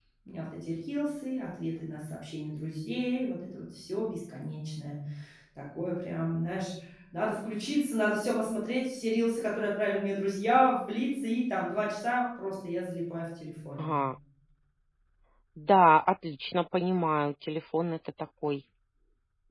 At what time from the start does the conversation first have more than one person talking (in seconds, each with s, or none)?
none